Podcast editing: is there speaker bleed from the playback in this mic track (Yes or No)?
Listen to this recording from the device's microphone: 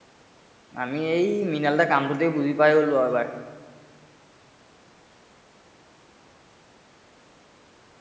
No